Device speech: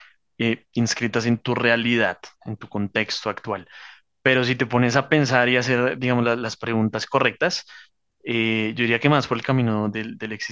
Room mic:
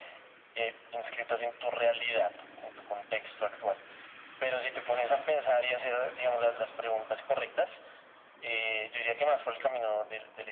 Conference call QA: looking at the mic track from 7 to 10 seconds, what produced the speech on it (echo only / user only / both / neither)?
echo only